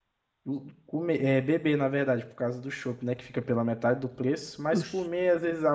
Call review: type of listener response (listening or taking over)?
listening